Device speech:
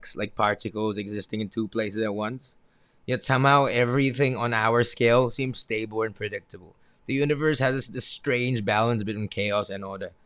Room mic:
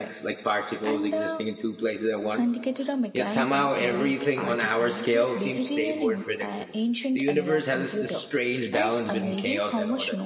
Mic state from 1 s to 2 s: both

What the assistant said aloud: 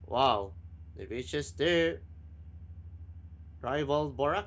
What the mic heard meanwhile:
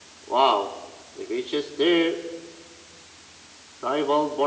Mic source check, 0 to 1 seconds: echo only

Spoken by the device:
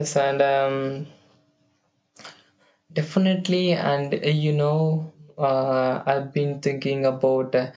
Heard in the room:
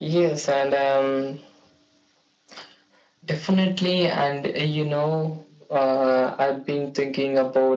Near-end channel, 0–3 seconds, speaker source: echo only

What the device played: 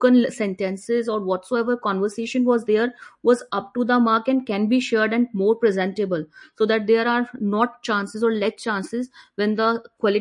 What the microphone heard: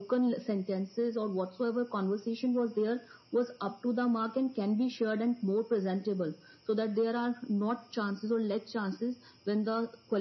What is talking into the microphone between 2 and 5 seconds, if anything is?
echo only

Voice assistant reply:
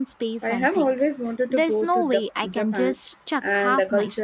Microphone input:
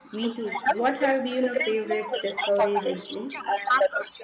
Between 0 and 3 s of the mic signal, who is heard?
both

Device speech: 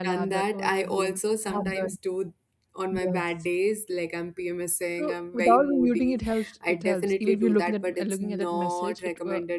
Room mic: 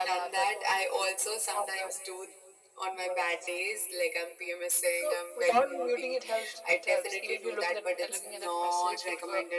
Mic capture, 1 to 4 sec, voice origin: echo only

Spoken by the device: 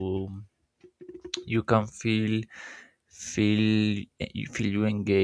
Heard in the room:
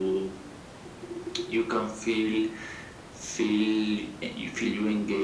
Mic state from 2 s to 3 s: echo only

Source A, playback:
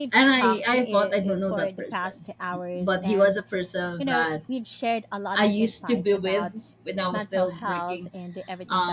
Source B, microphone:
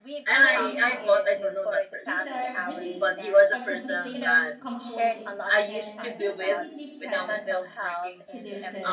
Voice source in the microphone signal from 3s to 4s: both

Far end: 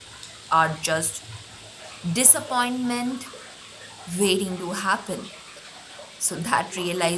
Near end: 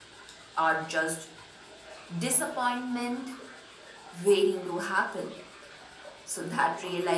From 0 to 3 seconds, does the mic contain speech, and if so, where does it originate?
echo only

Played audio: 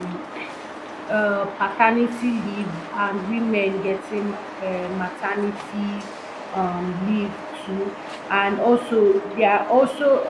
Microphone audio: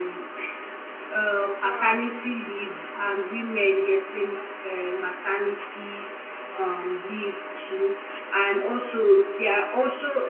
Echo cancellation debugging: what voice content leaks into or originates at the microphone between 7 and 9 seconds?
echo only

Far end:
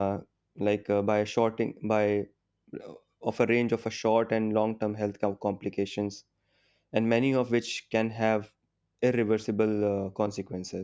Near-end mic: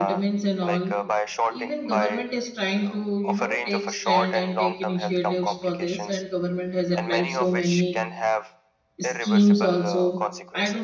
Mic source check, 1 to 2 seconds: both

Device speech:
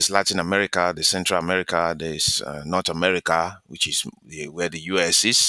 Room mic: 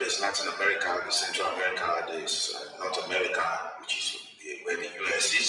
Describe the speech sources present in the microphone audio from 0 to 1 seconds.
echo only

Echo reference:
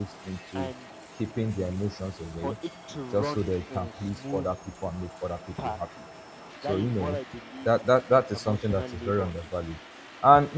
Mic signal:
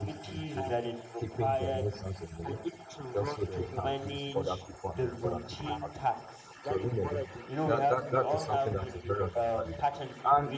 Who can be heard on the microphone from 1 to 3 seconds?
both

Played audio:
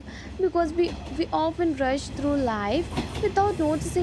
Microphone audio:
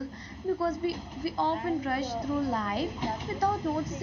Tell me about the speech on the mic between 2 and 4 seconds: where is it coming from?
both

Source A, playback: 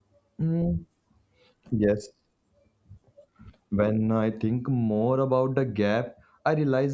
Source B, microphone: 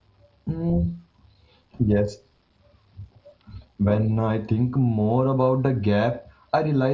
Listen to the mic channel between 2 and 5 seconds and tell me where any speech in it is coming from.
echo only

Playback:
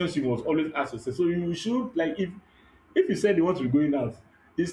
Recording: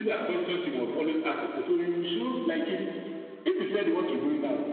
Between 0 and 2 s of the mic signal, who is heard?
echo only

